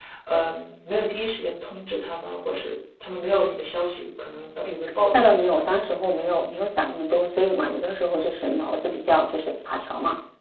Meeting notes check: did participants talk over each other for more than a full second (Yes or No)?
No